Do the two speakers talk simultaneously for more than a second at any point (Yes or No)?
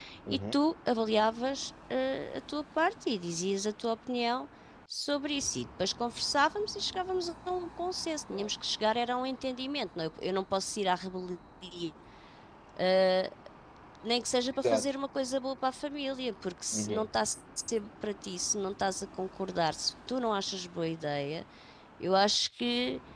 No